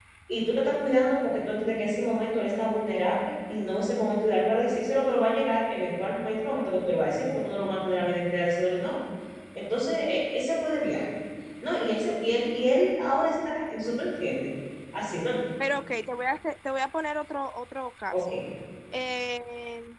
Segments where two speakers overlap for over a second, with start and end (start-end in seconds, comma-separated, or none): none